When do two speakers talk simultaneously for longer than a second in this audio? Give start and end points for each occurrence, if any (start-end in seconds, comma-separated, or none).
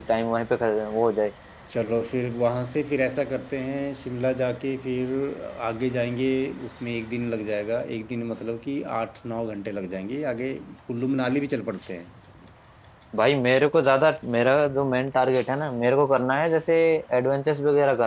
none